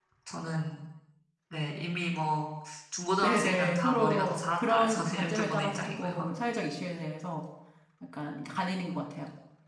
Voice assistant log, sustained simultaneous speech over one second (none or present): present